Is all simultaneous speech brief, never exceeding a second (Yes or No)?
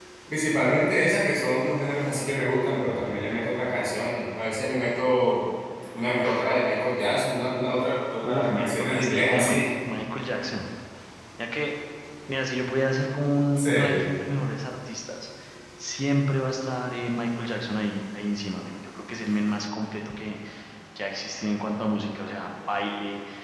No